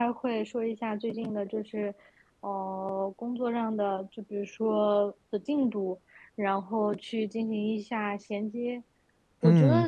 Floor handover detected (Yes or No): No